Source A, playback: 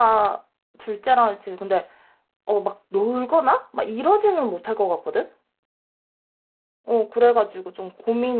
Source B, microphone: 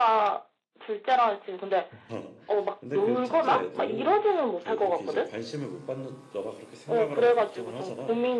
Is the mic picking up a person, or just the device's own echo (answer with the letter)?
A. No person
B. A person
B